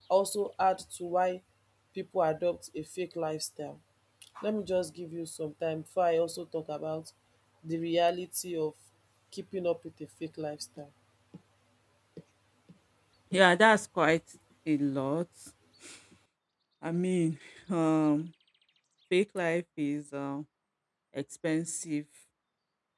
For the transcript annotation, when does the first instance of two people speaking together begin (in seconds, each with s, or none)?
none